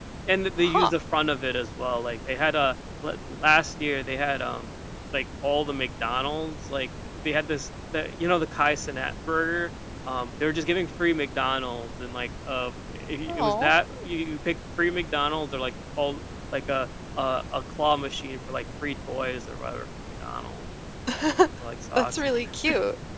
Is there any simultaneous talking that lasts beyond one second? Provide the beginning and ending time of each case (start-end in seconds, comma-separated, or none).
none